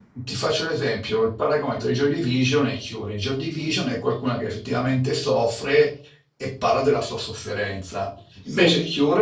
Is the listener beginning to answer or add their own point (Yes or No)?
No